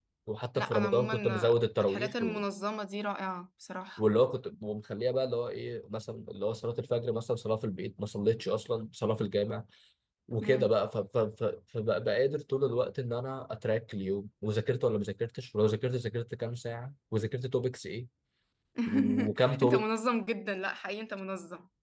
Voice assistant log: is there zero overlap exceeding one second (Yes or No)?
No